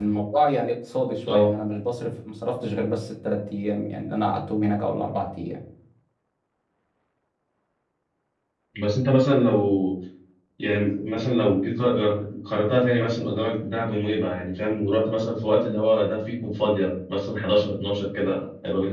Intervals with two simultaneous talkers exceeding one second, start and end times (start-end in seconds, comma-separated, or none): none